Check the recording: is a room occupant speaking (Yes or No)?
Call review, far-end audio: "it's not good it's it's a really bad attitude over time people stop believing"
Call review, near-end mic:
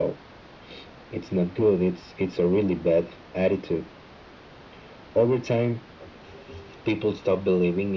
No